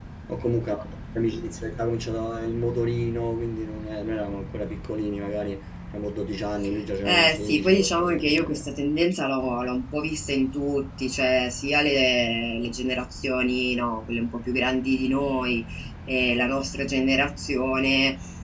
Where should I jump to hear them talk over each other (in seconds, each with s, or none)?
7.0 s